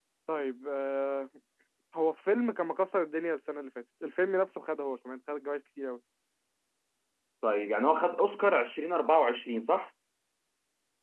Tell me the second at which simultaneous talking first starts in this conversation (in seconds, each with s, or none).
none